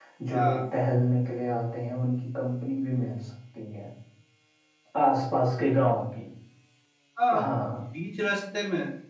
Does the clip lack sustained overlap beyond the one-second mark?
Yes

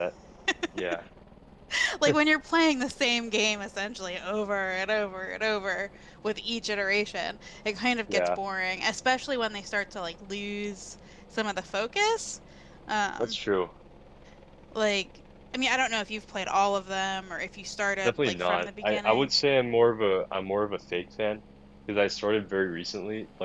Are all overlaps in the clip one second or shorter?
No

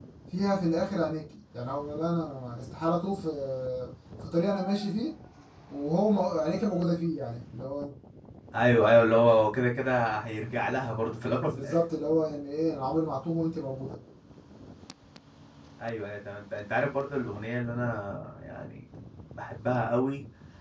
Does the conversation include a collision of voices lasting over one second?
No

